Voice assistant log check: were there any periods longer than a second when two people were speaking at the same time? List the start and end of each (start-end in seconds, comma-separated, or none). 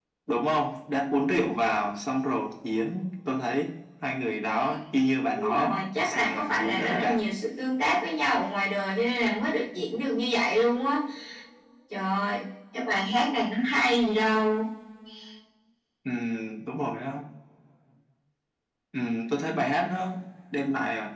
5.3-7.2